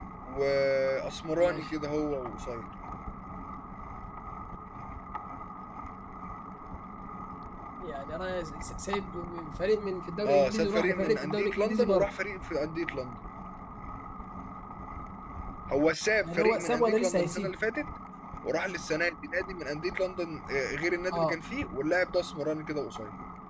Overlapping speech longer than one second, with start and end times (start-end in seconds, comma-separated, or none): 10.2-12.1, 16.2-17.6